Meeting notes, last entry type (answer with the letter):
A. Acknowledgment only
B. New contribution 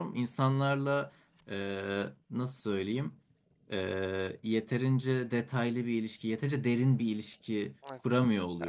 B